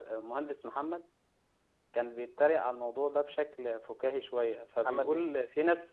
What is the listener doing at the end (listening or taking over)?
listening